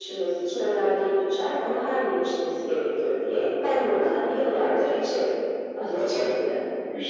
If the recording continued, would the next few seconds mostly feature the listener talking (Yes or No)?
Yes